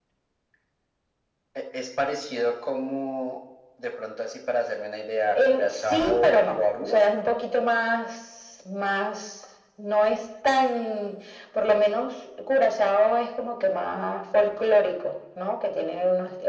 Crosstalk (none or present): present